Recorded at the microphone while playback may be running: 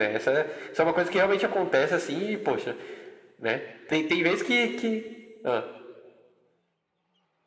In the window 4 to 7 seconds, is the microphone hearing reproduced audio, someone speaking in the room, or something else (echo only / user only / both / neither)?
echo only